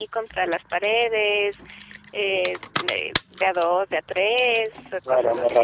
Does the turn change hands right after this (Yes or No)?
Yes